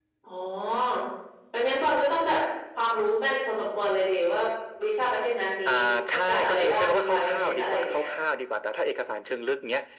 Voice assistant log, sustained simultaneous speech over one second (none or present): present